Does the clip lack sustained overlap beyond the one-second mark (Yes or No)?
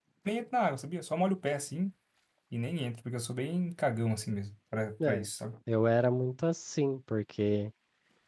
Yes